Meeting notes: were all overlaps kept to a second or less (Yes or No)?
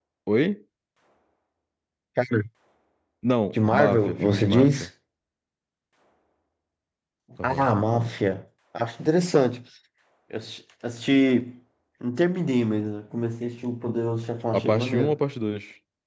No